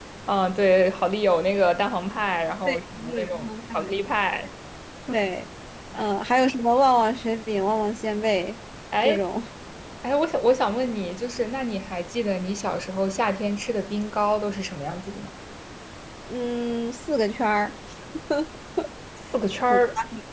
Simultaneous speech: Yes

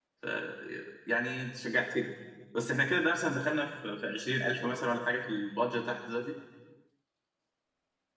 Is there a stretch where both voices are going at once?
No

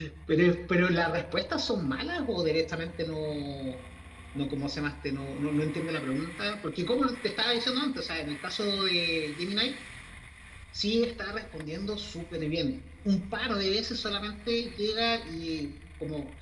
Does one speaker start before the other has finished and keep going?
No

